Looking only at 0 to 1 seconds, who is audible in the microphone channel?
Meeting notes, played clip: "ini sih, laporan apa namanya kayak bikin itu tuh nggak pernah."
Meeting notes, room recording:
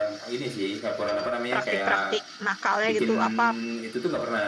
echo only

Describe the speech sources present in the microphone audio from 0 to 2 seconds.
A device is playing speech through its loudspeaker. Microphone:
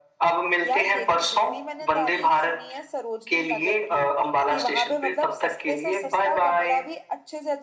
both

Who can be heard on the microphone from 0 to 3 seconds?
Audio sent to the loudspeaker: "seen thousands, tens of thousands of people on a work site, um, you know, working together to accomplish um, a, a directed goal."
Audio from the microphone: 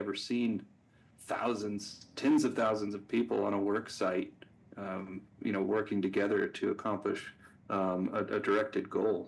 echo only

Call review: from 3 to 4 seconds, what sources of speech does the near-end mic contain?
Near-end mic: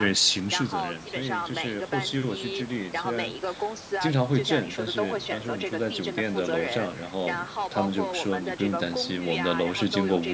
both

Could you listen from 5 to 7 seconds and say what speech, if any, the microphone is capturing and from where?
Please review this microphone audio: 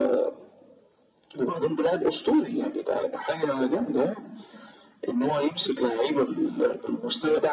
echo only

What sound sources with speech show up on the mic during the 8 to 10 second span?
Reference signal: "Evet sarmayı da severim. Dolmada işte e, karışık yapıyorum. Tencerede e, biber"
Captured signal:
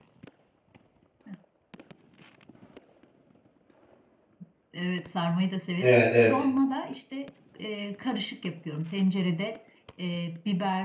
echo only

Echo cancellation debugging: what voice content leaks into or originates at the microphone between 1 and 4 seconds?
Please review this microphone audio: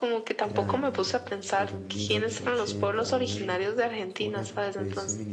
both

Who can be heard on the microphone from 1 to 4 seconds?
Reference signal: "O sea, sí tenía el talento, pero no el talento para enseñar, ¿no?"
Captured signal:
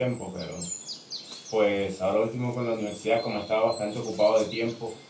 user only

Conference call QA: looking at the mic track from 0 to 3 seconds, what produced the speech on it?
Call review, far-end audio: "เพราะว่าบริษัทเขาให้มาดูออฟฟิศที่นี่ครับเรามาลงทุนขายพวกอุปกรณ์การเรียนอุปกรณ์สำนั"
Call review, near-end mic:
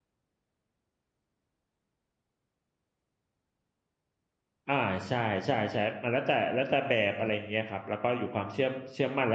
neither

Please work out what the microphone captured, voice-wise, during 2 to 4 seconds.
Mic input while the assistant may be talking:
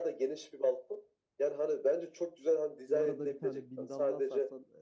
both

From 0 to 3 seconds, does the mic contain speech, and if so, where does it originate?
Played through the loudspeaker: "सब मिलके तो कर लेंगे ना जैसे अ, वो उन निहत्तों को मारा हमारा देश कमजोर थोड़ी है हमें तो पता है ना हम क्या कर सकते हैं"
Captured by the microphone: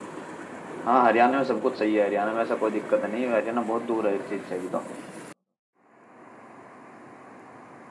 user only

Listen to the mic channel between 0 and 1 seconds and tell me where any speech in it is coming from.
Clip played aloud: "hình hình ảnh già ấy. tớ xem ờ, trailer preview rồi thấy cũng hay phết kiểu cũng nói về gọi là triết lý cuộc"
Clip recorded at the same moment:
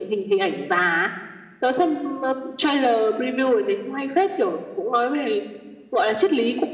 echo only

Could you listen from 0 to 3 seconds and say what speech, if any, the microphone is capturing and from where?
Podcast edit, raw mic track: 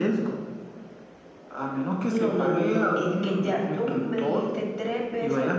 both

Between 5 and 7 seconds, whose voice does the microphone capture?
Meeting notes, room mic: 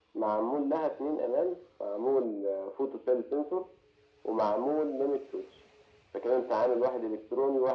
echo only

